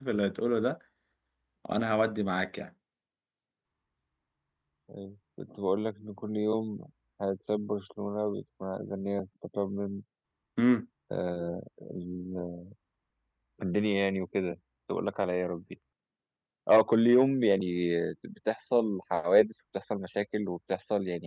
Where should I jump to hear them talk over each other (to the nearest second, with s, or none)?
none